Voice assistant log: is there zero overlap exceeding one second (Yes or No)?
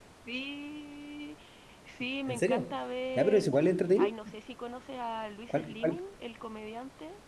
Yes